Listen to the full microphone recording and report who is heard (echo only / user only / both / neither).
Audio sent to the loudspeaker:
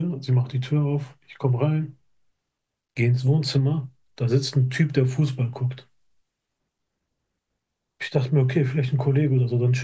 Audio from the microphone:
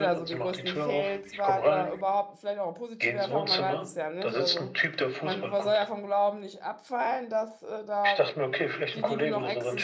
both